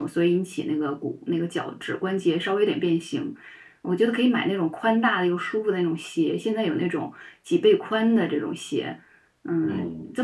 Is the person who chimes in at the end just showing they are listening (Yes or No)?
Yes